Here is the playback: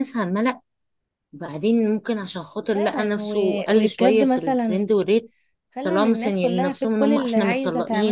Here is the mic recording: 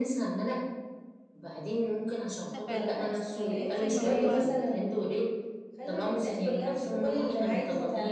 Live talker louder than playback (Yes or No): No